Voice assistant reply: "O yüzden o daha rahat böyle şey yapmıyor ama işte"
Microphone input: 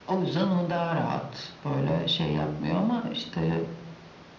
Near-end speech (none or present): none